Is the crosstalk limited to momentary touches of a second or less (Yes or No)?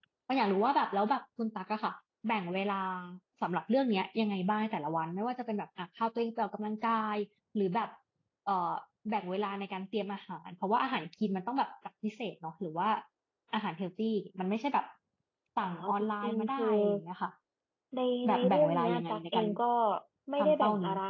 No